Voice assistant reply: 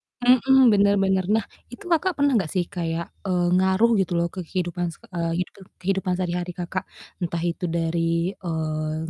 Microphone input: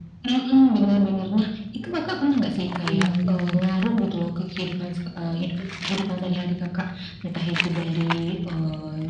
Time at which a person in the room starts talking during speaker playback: 3 s

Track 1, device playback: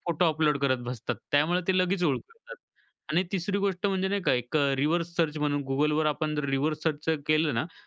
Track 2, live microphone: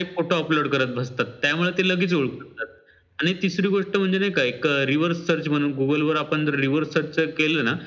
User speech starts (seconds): none

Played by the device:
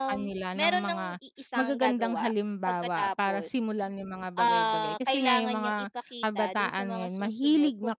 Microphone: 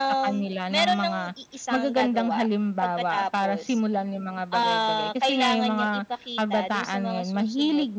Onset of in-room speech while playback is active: none

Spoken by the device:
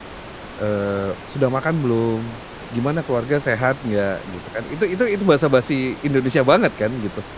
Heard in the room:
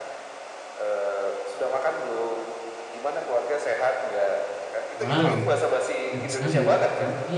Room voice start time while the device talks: 5 s

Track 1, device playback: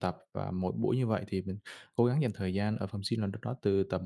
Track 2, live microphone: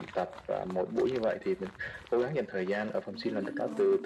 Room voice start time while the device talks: 3 s

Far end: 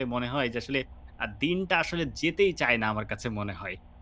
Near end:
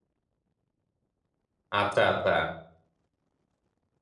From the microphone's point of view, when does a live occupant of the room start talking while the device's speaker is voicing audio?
2 s

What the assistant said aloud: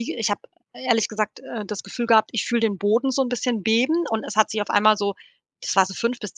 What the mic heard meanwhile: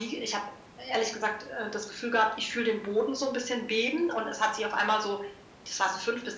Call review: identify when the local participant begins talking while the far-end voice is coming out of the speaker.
none

